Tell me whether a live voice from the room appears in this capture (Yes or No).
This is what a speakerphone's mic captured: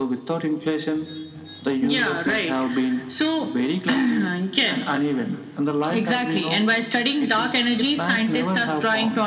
No